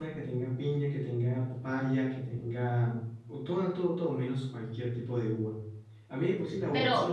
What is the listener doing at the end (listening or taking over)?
listening